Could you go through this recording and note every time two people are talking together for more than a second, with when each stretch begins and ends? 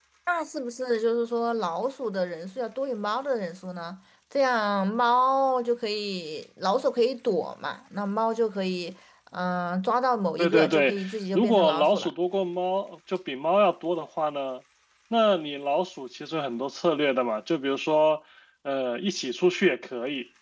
10.4-12.1

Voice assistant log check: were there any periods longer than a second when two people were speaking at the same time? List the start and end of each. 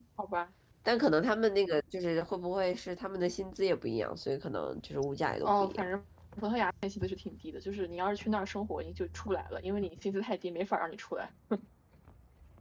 none

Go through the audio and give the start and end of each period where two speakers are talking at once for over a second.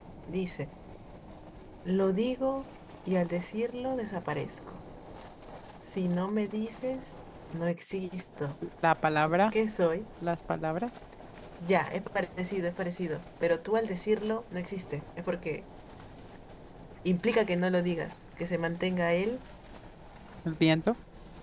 none

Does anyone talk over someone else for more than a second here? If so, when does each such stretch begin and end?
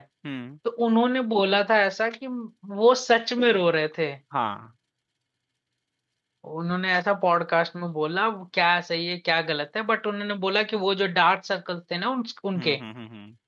none

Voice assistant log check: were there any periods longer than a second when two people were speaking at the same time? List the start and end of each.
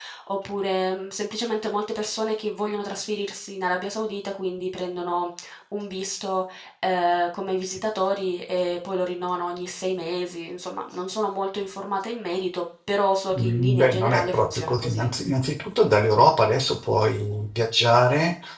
13.4-15.1

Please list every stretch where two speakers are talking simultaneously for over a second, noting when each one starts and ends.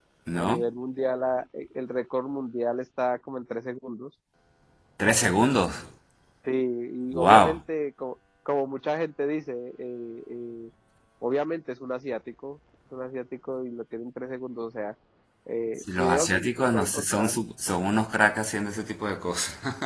16.0-17.3

